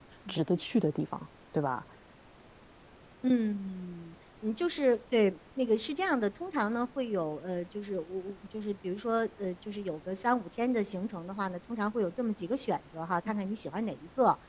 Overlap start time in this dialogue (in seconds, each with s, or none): none